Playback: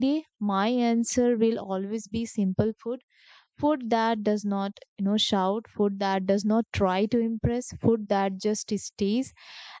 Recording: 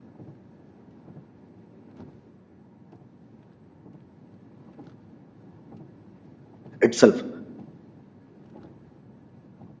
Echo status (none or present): none